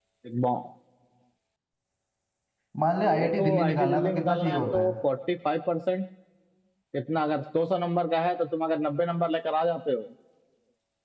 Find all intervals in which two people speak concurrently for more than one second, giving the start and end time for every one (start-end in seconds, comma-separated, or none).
3.0-4.9